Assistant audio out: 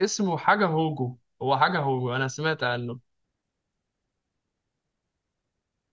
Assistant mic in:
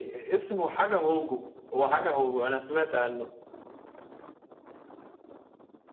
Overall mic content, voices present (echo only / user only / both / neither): echo only